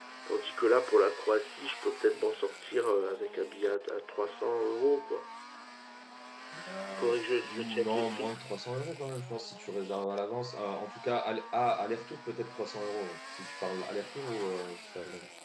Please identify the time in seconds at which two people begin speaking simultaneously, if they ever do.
7 s

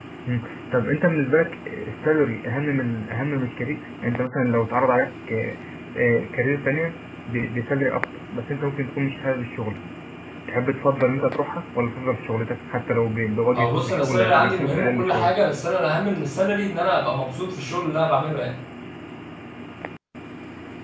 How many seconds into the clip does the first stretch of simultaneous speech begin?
14 s

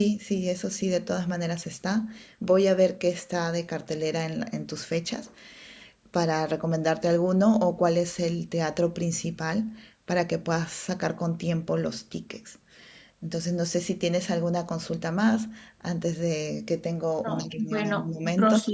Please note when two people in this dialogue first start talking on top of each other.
17 s

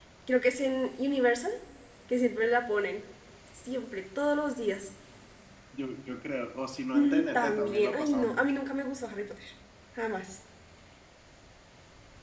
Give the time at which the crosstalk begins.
7 s

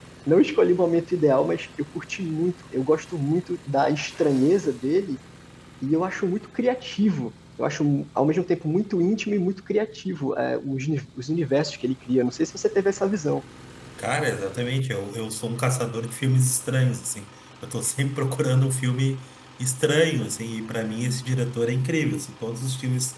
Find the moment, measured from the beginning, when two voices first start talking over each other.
none

